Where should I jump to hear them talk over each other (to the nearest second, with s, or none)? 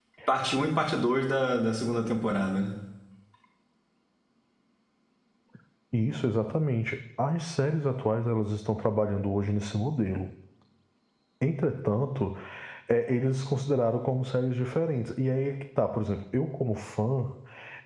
none